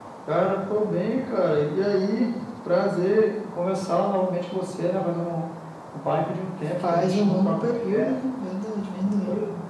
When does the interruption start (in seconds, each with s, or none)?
6.8 s